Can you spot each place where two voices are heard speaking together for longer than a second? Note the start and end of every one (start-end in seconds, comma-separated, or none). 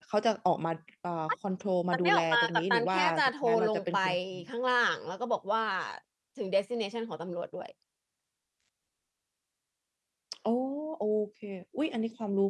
1.9-4.0